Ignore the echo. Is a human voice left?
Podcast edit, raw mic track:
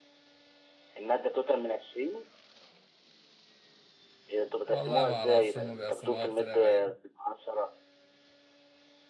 Yes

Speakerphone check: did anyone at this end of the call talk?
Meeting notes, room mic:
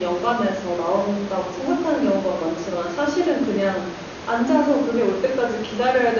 No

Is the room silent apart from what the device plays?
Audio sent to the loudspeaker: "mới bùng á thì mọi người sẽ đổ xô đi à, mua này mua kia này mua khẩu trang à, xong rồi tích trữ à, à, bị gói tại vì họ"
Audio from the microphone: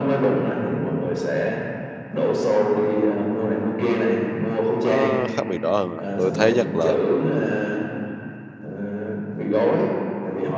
No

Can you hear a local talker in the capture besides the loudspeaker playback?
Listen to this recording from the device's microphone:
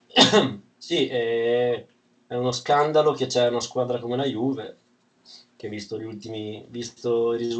Yes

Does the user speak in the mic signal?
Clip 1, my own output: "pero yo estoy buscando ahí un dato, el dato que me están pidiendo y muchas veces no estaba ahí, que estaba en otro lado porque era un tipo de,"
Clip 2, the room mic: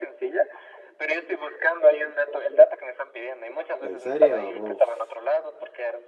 Yes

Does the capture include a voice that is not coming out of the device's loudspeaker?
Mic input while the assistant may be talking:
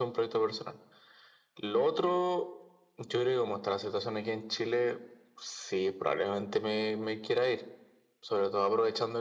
No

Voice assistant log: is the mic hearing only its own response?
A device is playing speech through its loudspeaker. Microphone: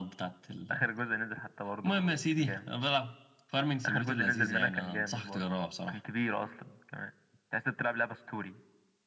Yes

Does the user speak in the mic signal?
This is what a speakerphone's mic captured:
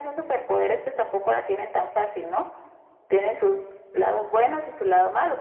No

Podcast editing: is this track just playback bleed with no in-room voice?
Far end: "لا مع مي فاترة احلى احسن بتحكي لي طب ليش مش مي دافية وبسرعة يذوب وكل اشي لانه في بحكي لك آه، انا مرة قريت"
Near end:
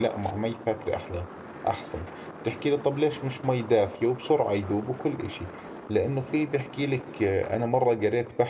Yes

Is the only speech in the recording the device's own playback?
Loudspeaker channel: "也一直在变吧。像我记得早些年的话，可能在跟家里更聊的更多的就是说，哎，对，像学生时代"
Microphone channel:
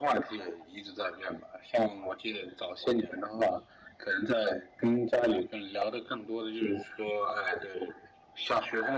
Yes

